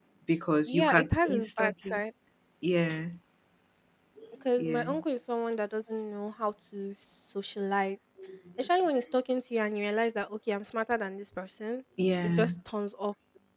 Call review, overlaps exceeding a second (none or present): present